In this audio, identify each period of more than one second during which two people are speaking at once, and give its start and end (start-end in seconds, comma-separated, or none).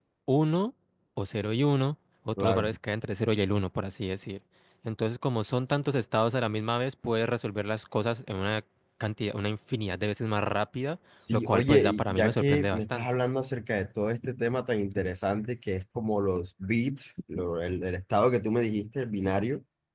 11.3-13.1